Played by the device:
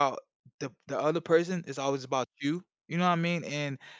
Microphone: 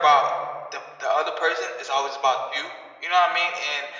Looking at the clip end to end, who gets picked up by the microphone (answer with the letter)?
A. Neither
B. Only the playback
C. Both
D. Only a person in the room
B